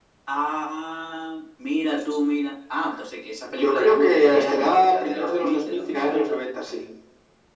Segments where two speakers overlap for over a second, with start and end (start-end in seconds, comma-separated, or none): 3.5-6.4